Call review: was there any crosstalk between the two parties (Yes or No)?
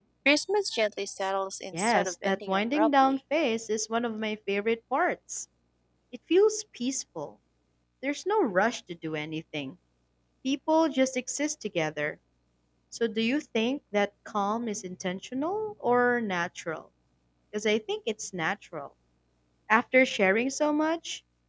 Yes